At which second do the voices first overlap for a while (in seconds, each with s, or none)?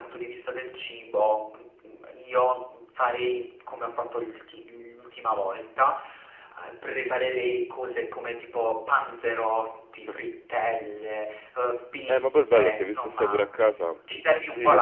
12.1 s